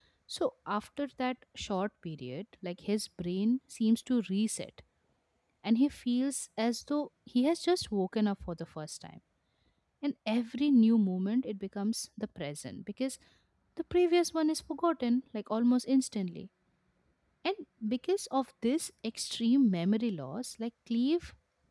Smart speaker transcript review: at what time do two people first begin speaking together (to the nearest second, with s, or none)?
none